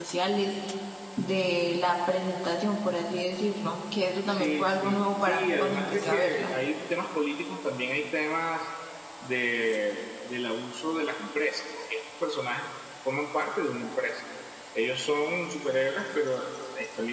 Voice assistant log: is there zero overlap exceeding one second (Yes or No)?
No